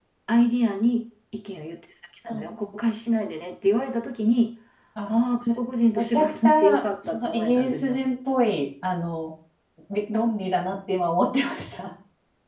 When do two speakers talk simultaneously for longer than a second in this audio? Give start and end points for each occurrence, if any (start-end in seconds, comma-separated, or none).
6.0-8.0